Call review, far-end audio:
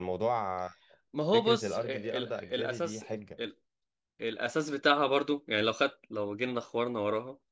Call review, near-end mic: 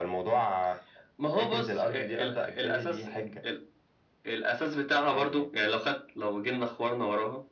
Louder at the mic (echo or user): echo